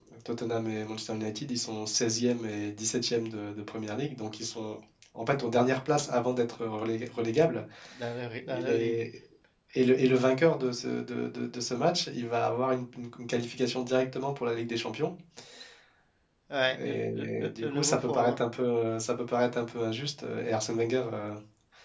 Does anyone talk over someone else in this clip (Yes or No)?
Yes